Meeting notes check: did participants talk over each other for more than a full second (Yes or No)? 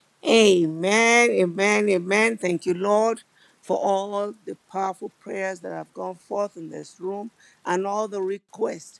No